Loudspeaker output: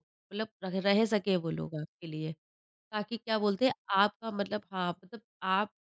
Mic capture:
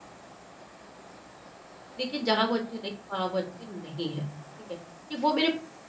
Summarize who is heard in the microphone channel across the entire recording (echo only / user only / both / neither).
user only